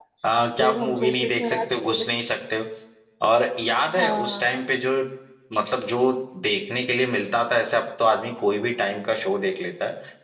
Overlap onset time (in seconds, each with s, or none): 0.6 s